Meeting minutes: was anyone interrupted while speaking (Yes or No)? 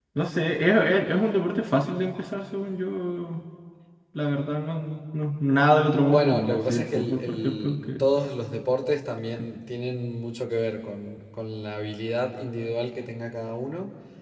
Yes